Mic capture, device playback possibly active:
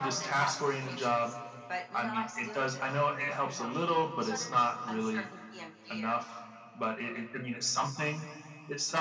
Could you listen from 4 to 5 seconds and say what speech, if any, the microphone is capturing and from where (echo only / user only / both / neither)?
echo only